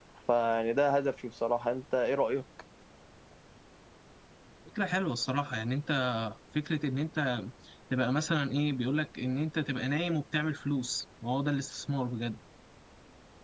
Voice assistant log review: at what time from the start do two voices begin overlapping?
none

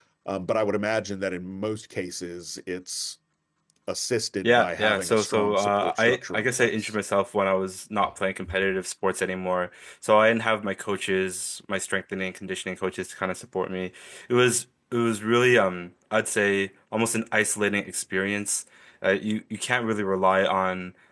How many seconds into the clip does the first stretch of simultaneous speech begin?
4.4 s

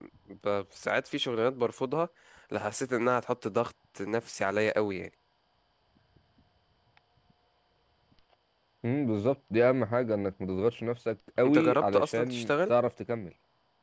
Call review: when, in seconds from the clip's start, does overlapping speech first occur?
11.4 s

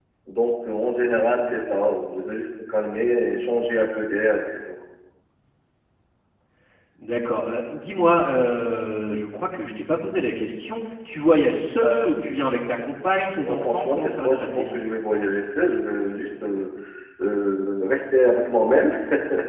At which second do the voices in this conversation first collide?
13.4 s

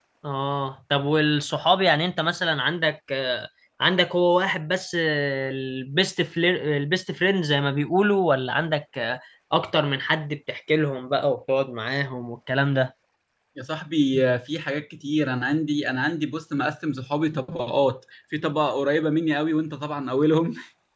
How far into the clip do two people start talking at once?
none

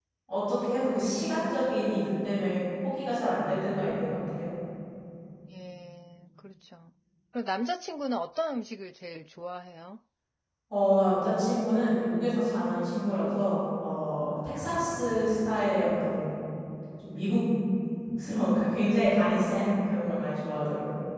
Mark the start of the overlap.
none

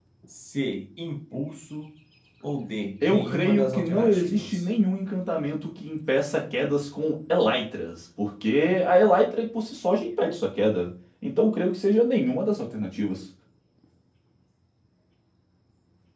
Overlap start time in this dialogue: 3.0 s

